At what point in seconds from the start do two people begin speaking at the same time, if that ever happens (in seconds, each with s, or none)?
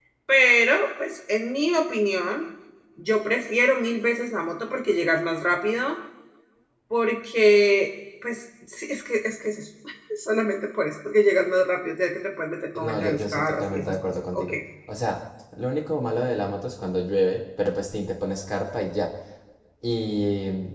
12.8 s